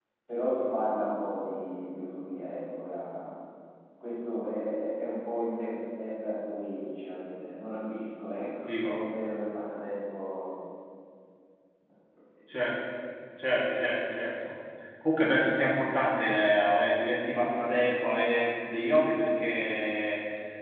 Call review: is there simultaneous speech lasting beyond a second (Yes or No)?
No